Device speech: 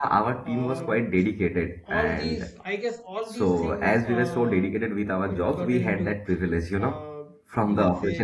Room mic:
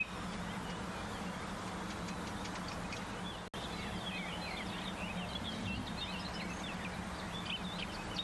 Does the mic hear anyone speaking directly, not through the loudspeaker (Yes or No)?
No